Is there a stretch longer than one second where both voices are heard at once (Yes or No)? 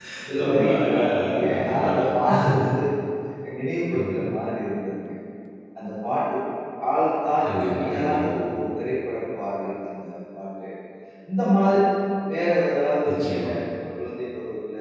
Yes